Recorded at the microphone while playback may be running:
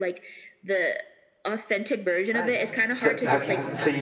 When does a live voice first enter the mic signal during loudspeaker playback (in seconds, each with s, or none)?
2.3 s